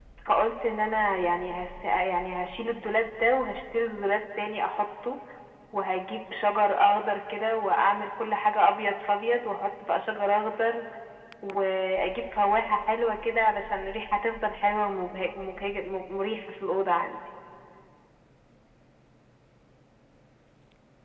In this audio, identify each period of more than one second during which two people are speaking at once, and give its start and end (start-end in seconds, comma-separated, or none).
none